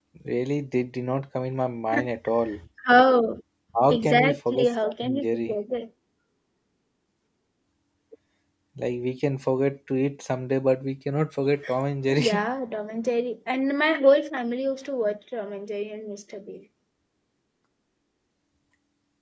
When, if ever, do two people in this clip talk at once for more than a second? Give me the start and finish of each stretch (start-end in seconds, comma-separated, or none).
3.9-5.5